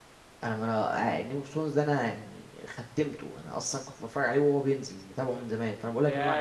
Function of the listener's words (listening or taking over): taking over